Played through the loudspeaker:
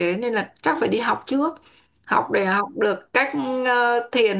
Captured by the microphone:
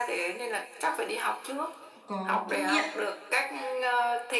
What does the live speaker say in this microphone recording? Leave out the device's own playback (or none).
có kinh nghiệm